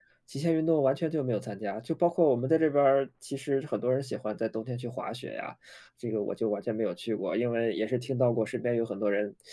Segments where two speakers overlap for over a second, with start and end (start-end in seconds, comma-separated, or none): none